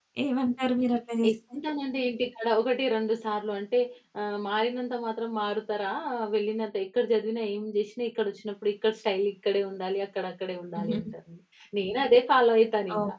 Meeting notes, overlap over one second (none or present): none